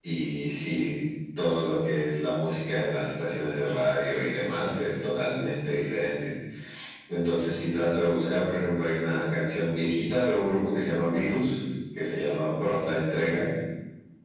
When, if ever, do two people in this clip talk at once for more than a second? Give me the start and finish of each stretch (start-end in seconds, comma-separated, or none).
none